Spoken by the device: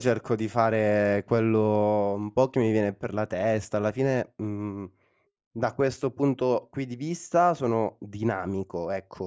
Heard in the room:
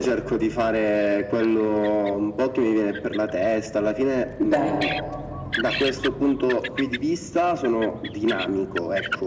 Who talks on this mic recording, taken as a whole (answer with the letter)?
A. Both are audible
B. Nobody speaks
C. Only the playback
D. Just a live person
A